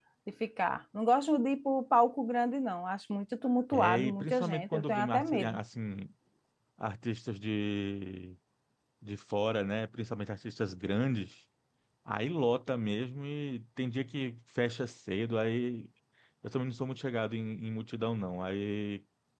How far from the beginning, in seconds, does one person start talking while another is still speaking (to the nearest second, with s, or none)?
4 s